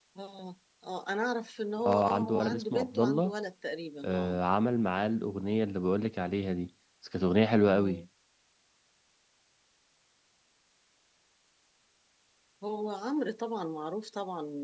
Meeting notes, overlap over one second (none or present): present